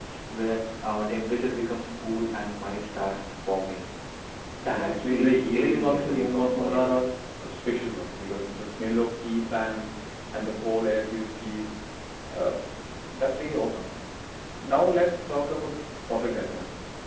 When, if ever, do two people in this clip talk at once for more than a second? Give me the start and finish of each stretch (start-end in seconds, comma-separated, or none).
4.7-6.9